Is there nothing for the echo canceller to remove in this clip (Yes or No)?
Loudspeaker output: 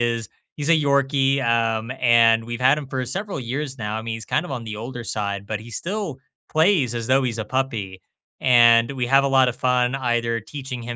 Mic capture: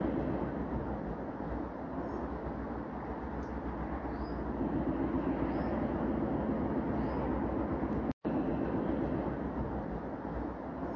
Yes